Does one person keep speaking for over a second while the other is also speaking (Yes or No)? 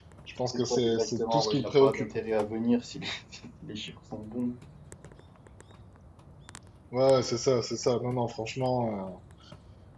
Yes